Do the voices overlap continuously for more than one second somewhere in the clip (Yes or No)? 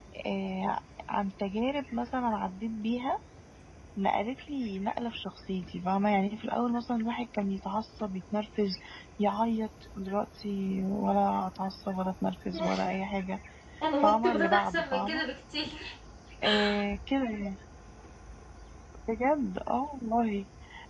Yes